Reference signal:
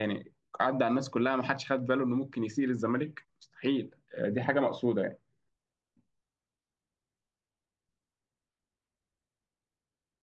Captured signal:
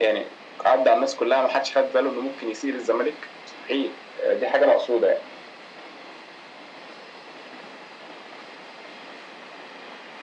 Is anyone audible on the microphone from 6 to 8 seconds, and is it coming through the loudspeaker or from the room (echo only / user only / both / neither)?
neither